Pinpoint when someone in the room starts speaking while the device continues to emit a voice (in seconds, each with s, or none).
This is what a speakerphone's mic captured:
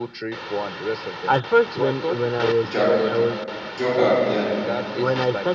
2.7 s